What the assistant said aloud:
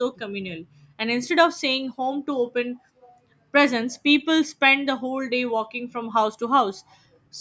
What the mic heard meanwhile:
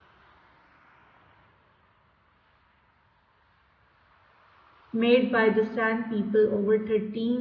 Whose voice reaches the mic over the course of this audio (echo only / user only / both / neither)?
user only